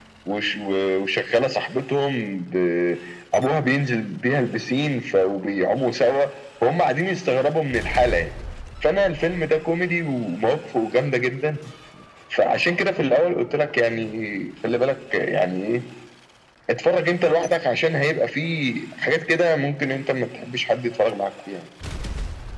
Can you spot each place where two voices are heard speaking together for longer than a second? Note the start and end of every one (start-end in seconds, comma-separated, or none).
none